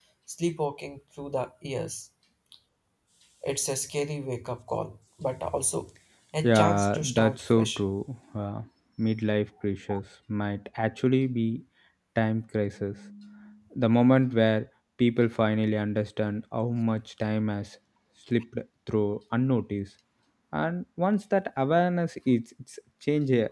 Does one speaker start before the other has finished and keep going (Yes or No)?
Yes